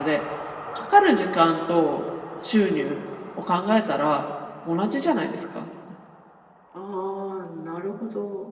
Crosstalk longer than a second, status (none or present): none